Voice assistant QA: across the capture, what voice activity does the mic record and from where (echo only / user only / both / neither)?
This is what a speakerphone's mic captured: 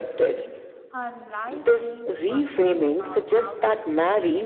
both